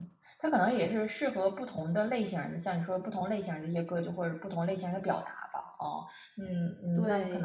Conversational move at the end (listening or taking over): taking over